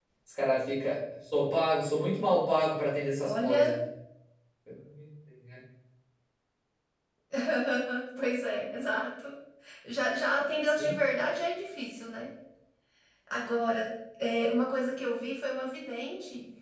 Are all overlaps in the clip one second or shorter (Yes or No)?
Yes